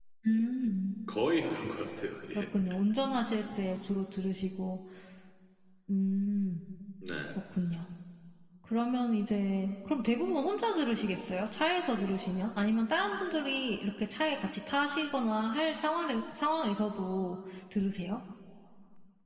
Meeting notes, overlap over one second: none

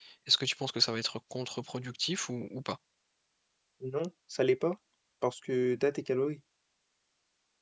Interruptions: none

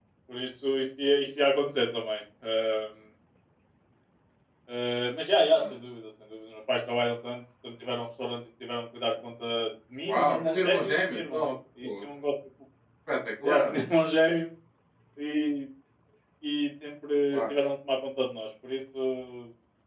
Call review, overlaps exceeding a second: present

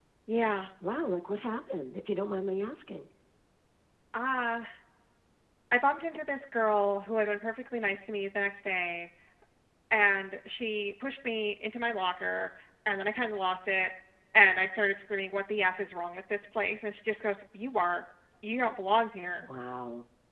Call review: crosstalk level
none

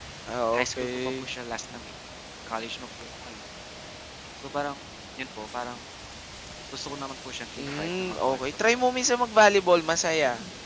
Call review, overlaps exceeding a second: present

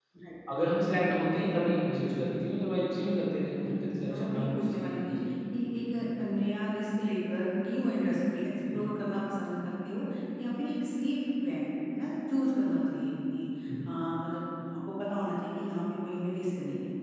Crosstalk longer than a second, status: present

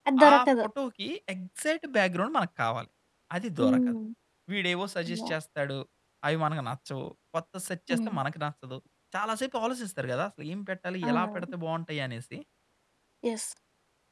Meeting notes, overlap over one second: none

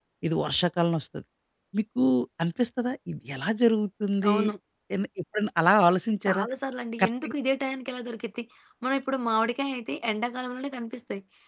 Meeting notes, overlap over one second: none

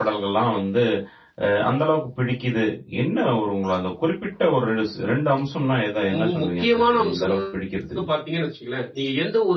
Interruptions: present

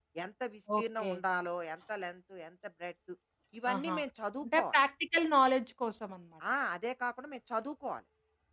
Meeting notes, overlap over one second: none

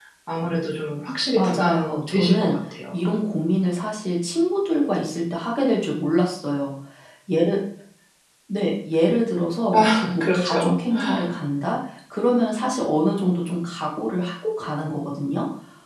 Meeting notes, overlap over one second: present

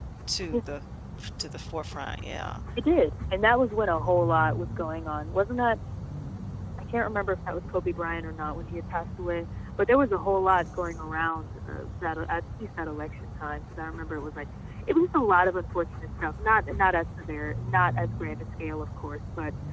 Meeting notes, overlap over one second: none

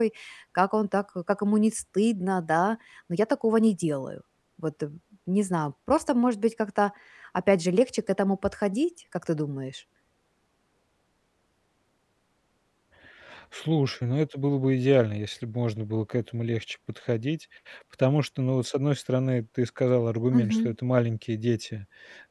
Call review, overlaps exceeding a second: none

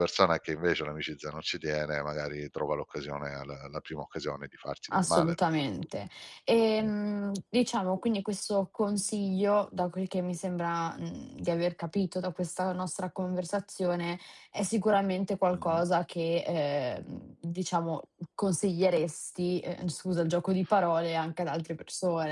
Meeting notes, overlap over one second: none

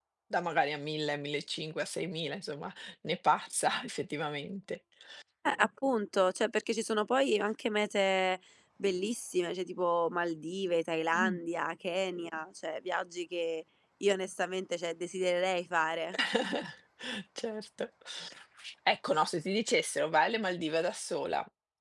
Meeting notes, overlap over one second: none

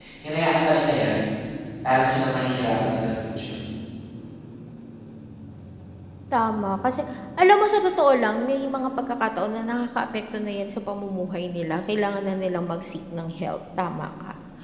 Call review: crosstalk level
none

